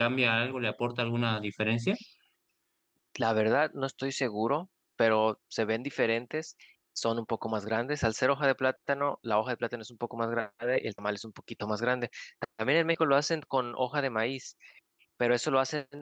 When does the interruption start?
none

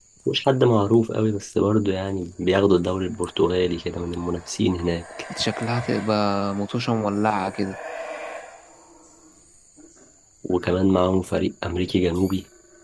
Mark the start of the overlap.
none

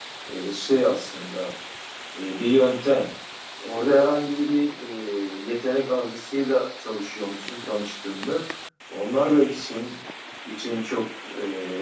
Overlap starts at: none

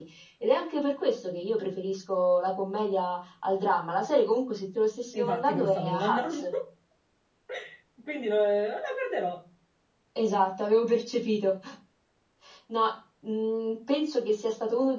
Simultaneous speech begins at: 5 s

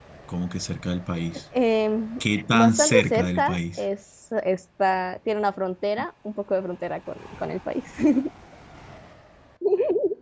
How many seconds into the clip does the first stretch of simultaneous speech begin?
3 s

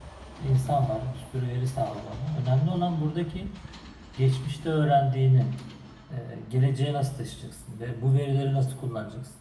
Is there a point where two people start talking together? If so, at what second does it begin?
none

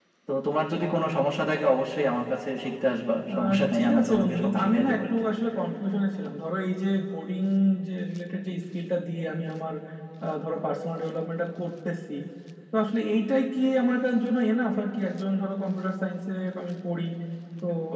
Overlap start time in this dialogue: 3 s

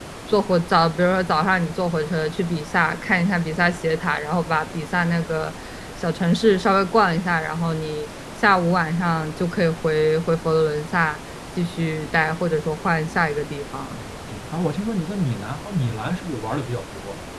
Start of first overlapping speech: none

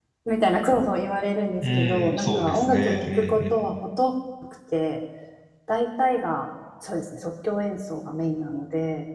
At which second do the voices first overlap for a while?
2 s

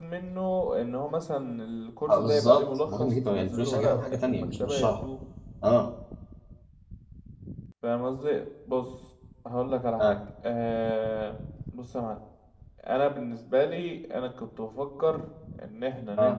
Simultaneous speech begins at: 2 s

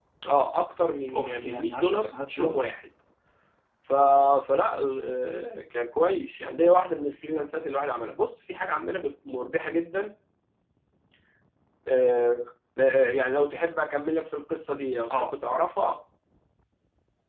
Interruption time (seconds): 1 s

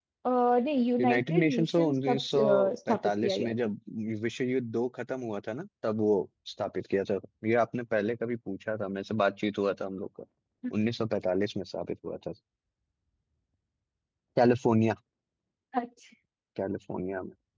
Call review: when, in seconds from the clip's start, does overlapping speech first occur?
1 s

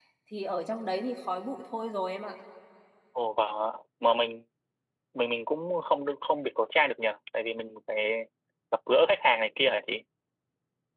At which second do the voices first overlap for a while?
none

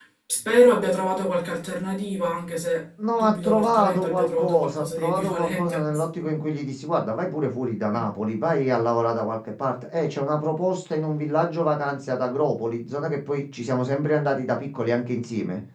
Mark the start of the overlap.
3 s

